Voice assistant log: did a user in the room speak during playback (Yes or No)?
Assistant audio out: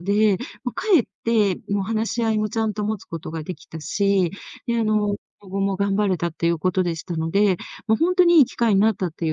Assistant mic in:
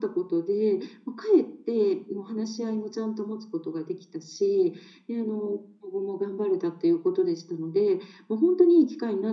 No